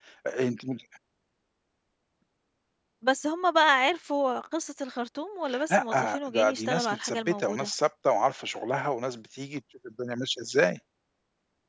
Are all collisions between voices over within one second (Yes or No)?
No